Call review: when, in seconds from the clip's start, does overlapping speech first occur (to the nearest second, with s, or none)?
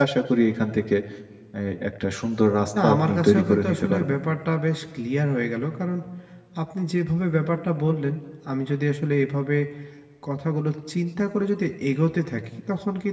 3 s